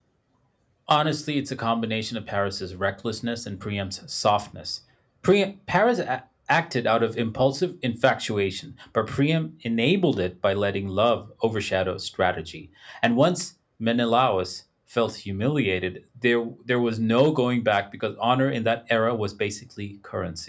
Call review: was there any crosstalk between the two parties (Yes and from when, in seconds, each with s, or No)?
No